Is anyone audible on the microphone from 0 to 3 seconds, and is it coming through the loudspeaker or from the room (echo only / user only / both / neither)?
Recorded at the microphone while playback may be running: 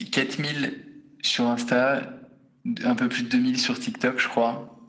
echo only